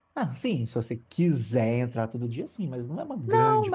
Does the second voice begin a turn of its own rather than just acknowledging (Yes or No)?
Yes